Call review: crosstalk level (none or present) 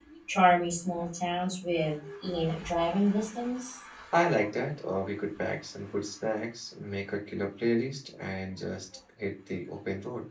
none